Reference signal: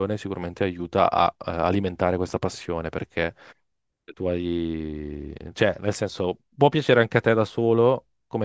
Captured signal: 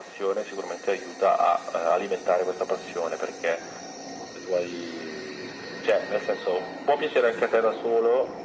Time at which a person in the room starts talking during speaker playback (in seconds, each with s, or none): none